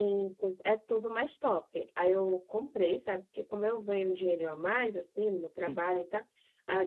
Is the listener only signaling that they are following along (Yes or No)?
Yes